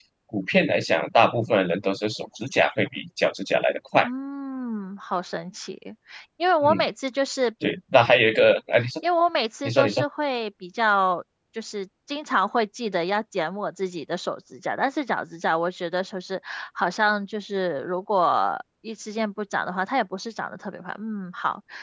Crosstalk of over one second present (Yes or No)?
No